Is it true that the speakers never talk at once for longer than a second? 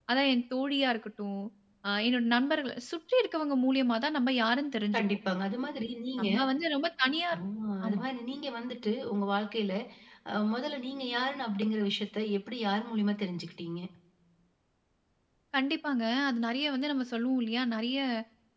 Yes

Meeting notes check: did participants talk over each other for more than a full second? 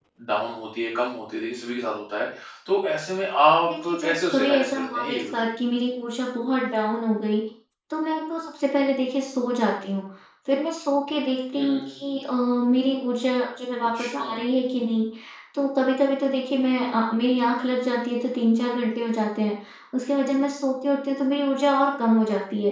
Yes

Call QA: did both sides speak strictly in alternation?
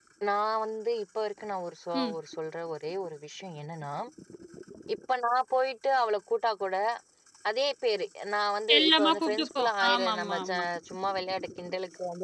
No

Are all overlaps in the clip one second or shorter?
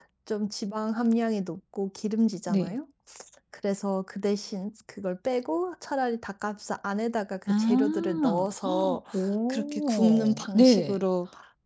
No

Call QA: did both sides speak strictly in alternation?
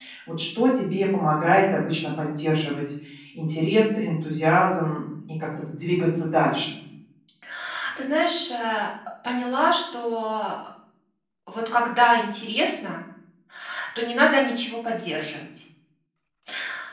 Yes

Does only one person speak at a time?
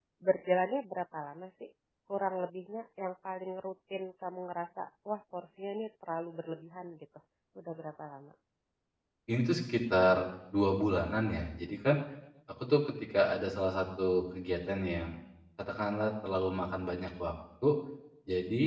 Yes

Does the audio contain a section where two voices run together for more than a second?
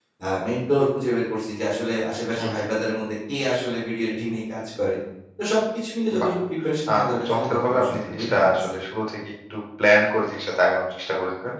Yes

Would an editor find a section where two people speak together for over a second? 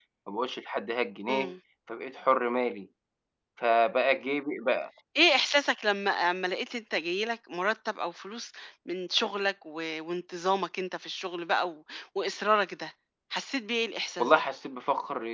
No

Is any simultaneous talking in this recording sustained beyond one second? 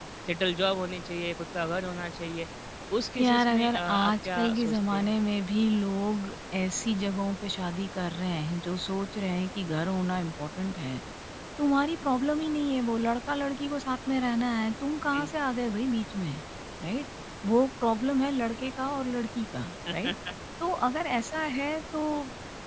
Yes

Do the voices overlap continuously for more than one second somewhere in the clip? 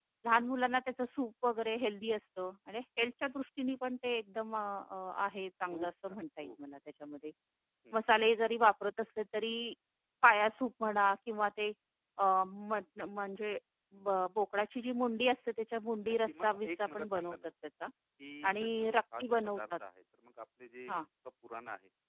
Yes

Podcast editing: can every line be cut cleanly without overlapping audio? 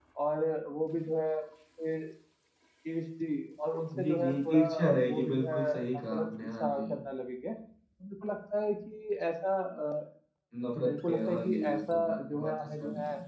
No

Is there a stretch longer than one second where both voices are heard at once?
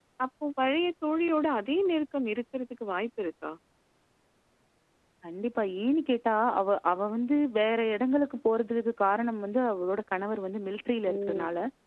No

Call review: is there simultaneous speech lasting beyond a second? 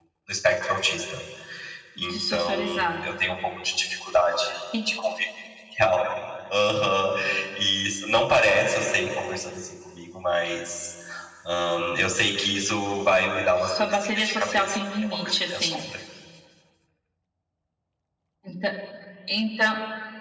Yes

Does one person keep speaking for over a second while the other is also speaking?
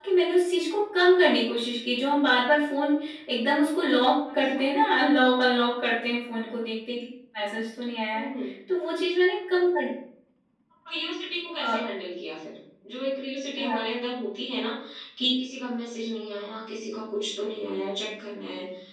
No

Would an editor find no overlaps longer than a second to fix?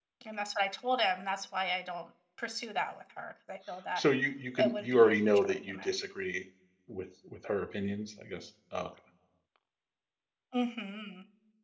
No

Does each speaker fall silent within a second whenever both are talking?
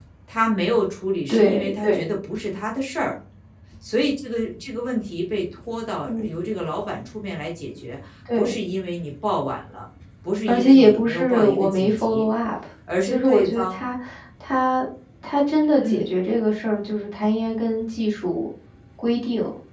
No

